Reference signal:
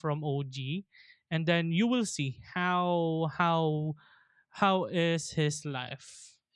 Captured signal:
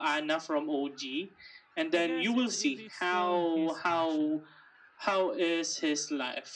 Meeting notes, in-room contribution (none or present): present